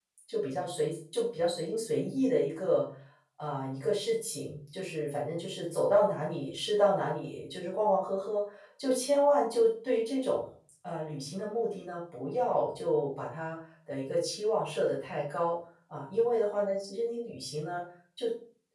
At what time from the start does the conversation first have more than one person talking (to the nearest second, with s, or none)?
none